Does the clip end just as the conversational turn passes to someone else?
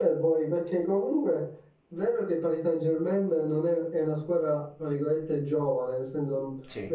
No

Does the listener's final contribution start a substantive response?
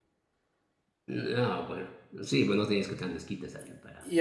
Yes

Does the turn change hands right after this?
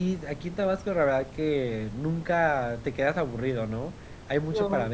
No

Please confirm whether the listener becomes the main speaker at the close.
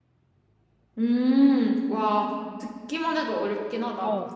Yes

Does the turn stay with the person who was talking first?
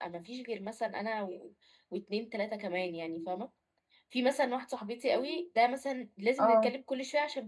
Yes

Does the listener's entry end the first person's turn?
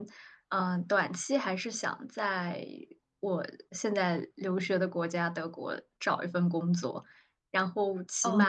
No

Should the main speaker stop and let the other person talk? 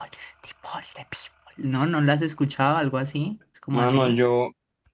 Yes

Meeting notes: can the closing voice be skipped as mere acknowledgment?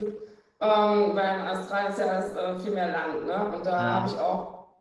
Yes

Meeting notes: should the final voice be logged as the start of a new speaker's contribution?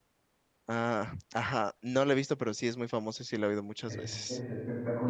Yes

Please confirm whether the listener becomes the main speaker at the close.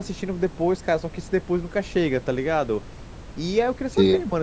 No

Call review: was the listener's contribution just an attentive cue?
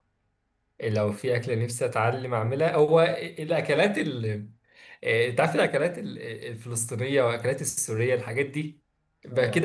Yes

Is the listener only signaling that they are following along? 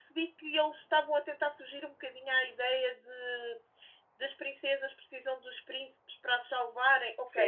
No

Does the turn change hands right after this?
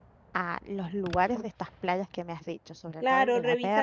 Yes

